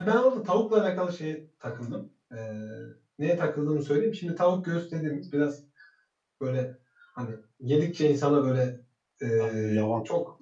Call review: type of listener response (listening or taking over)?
listening